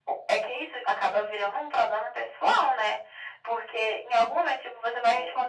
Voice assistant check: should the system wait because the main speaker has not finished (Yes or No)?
Yes